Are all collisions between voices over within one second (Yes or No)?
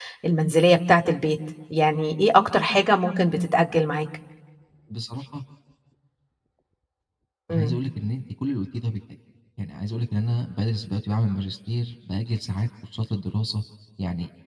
Yes